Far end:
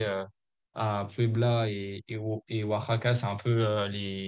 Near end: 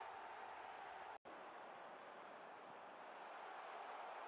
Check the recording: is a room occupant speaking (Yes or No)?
No